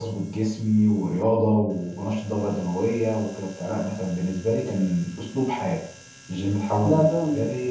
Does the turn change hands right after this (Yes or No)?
No